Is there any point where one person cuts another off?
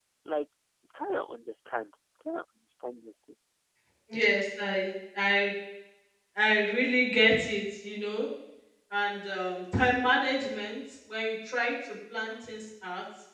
No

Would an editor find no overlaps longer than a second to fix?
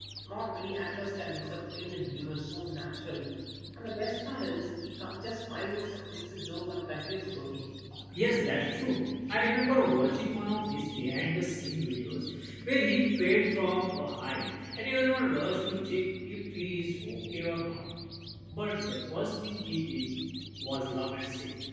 Yes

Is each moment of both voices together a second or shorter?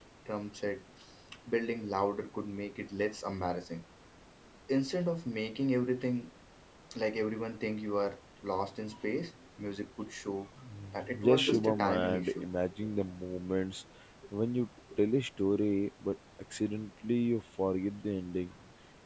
No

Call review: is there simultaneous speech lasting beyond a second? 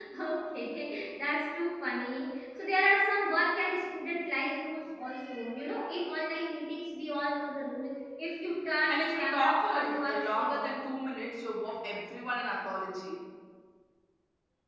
Yes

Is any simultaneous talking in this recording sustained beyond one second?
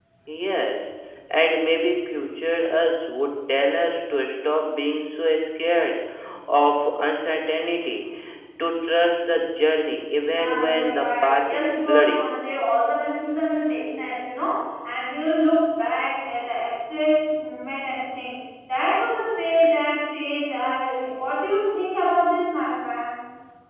Yes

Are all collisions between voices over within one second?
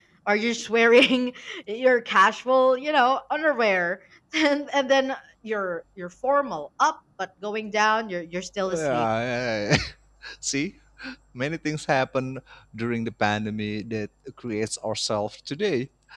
Yes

